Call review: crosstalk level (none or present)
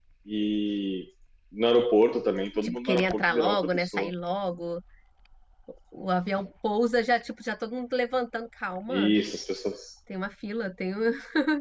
present